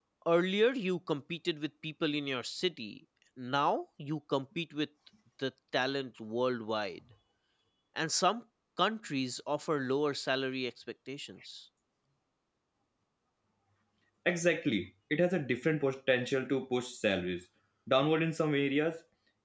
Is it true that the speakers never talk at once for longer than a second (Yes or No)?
Yes